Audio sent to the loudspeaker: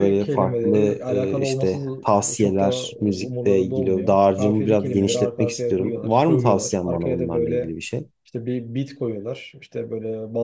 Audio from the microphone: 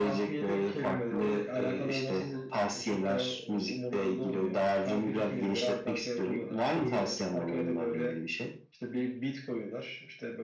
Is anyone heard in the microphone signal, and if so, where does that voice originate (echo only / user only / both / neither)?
both